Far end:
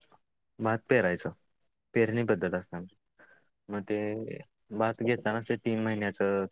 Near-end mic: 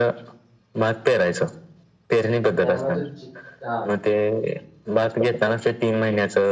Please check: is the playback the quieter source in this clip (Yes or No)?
No